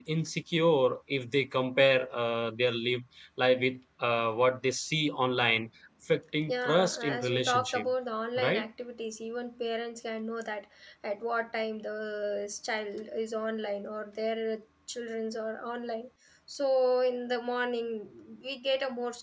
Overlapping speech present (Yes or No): Yes